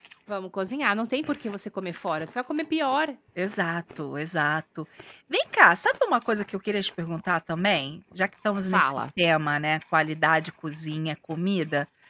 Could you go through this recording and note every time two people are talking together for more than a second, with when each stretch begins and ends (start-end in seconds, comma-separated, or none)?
none